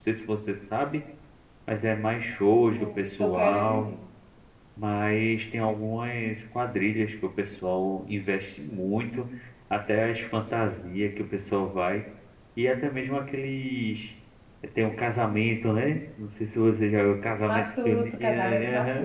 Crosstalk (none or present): present